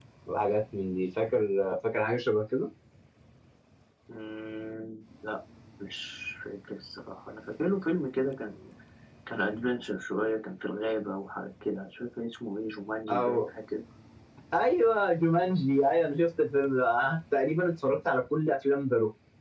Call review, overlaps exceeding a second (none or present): none